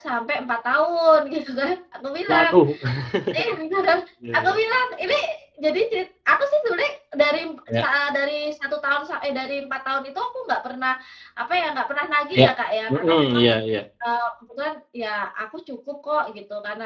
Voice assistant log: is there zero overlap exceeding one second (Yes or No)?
Yes